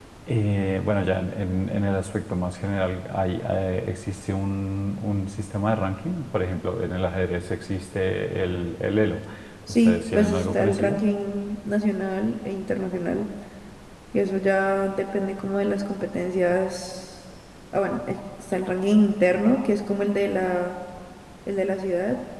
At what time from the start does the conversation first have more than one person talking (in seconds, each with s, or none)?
9.7 s